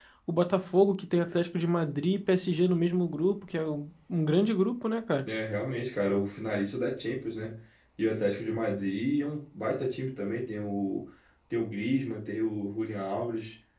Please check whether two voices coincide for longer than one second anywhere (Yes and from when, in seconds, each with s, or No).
No